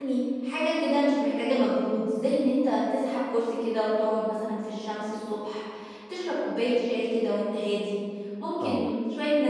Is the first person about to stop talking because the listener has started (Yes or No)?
No